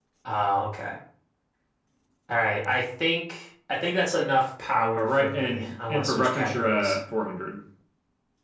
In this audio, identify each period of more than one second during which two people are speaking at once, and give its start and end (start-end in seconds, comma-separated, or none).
5.0-7.0